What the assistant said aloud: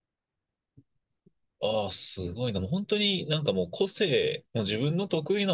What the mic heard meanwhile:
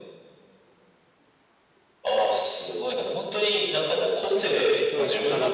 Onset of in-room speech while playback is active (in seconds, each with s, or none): 4.3 s